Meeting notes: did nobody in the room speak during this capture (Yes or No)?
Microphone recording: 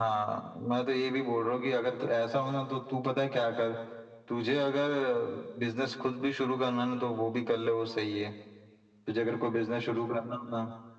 Yes